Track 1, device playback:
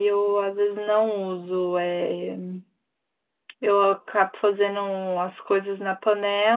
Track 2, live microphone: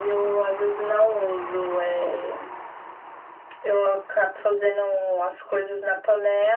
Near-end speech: none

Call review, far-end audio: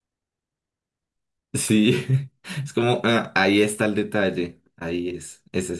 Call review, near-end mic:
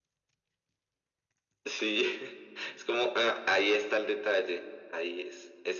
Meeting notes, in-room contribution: none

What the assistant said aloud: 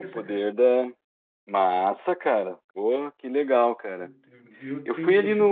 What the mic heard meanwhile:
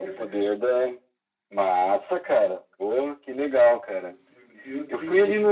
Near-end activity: none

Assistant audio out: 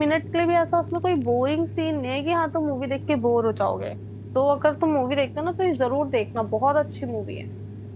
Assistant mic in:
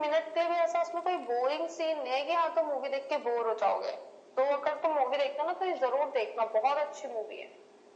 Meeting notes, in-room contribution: none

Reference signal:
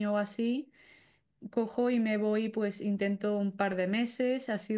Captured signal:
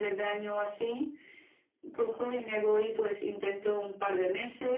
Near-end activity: none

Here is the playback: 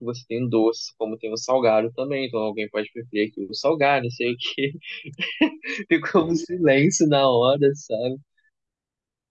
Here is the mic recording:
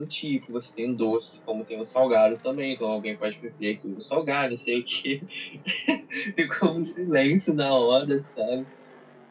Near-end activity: none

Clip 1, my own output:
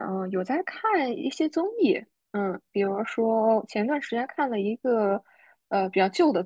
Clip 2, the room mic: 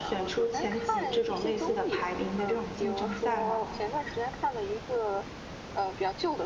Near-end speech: present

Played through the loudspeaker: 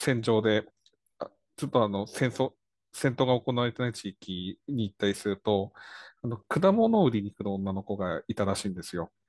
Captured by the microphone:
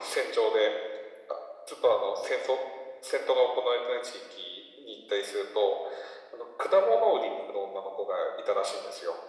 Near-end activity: none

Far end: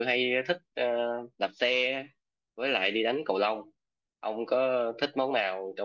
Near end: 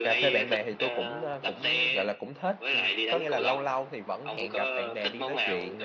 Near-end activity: present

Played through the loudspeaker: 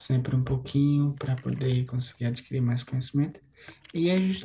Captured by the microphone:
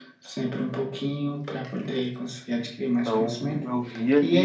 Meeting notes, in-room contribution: present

